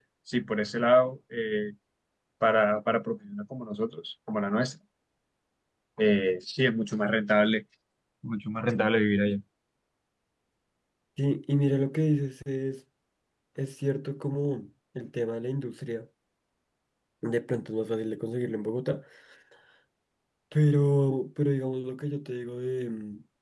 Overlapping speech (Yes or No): No